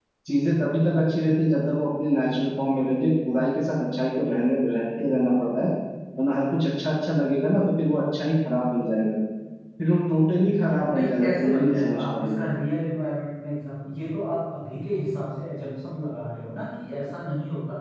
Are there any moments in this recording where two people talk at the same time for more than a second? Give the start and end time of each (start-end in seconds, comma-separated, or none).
10.9-12.4